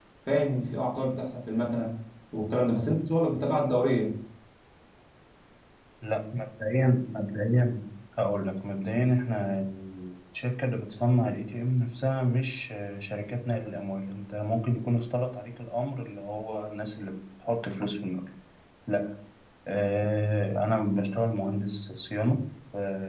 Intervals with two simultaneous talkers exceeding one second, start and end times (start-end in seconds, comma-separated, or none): none